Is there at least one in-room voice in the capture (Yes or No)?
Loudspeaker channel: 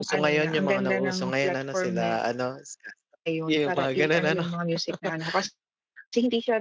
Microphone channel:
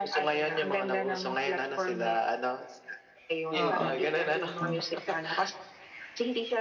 Yes